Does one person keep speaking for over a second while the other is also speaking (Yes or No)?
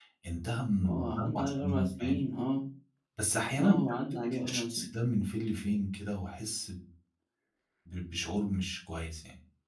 Yes